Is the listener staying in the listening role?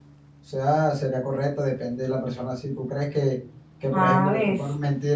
Yes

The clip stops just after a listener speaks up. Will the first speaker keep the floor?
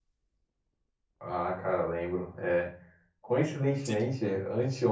Yes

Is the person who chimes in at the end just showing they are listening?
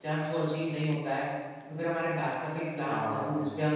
Yes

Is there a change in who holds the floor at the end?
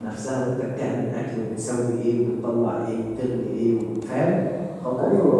Yes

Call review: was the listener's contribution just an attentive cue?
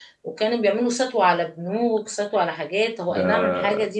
Yes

